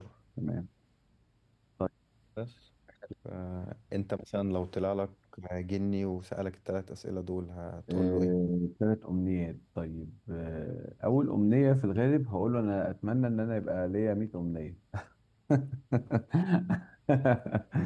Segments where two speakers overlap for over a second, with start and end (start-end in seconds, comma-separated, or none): none